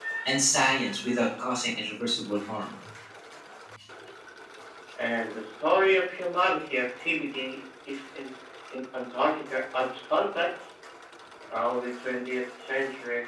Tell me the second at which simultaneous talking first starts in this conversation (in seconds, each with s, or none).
none